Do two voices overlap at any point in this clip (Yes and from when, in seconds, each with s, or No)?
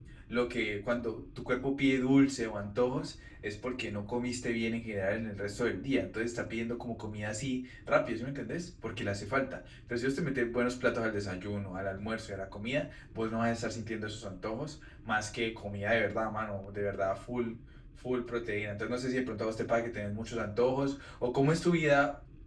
No